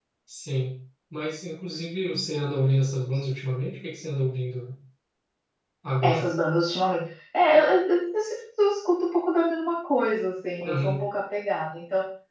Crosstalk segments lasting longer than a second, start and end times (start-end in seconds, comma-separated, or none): none